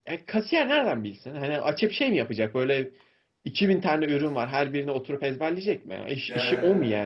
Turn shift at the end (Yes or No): No